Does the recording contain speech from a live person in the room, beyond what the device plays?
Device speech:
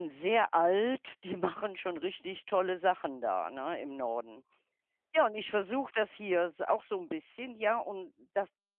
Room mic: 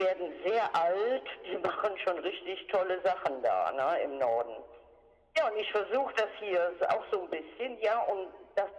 No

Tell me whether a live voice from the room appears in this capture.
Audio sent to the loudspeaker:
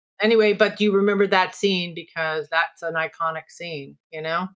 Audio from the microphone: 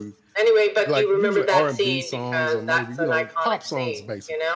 Yes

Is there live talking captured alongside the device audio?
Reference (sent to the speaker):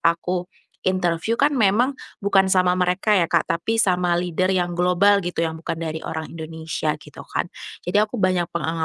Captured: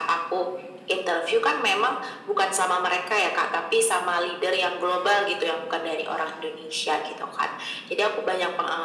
No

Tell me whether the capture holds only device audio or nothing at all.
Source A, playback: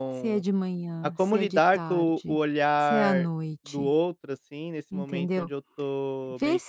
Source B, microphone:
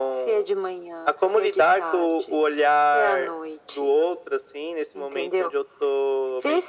Yes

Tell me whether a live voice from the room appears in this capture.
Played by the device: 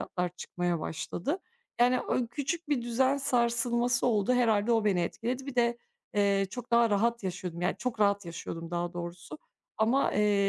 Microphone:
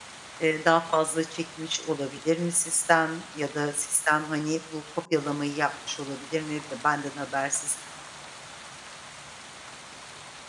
Yes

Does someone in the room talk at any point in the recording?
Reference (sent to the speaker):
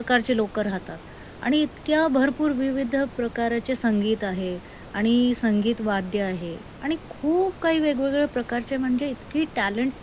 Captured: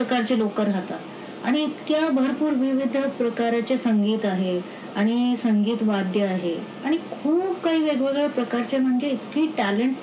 No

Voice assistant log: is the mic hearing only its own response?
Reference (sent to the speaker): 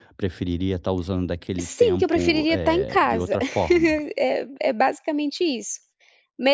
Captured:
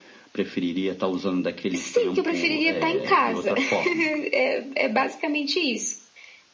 Yes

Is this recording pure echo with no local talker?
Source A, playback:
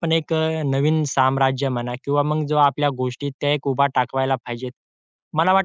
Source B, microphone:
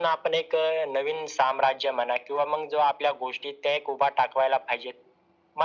Yes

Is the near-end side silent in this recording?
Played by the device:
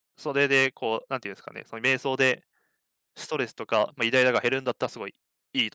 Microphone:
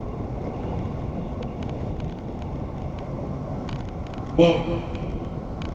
No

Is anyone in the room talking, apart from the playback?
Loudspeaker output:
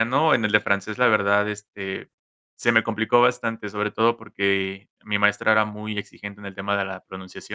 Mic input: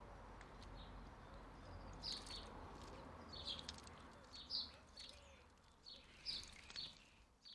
No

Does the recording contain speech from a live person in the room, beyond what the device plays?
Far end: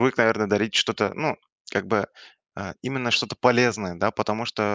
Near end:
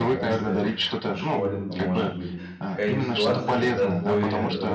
Yes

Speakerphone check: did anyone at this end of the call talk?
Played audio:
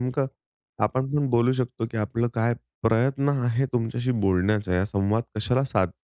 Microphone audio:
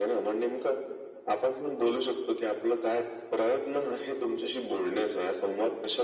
No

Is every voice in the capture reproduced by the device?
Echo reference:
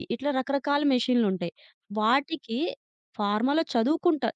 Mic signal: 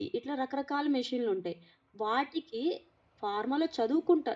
Yes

